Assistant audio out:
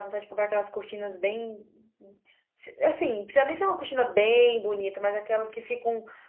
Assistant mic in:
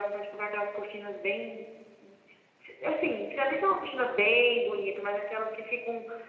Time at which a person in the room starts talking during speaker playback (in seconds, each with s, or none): none